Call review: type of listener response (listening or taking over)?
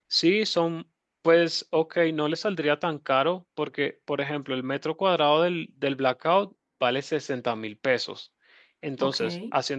listening